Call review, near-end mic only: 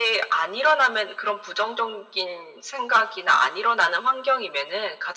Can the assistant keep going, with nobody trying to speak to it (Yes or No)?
Yes